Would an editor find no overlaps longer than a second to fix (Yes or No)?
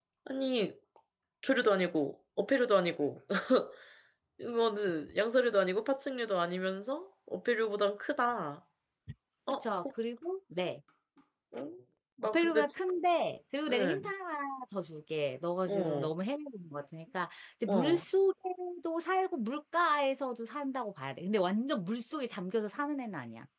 Yes